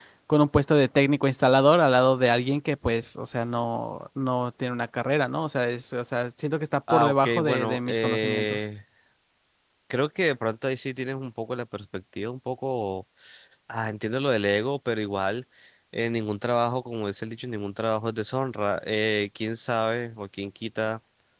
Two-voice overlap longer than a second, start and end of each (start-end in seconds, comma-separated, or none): 6.9-8.7